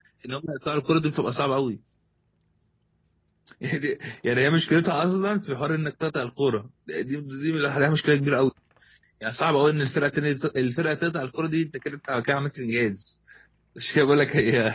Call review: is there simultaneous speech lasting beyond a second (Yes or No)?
No